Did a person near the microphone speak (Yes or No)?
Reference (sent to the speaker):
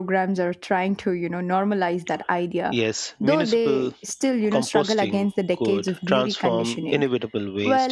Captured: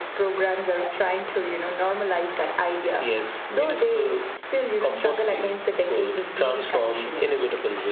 No